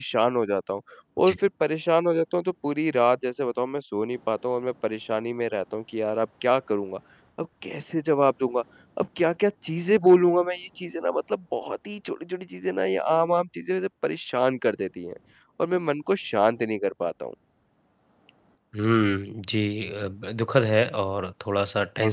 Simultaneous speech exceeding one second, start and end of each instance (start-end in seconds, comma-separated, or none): none